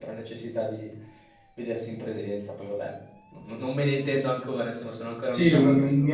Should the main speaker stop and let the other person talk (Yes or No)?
Yes